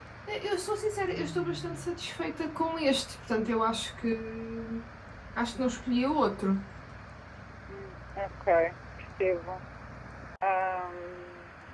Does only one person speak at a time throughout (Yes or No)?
Yes